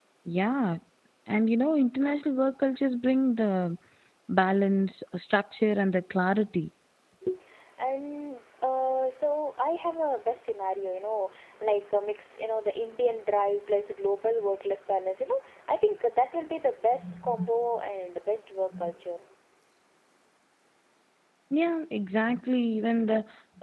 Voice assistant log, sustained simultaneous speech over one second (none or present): none